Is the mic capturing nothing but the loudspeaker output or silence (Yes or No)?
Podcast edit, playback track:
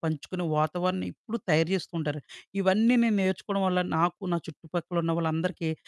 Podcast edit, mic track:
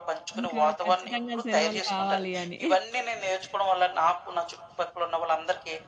No